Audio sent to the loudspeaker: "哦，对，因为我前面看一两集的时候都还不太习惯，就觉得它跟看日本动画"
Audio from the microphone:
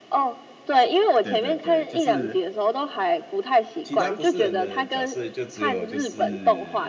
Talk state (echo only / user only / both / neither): both